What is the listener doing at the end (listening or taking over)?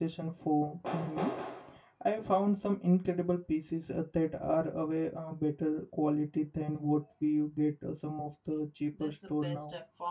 taking over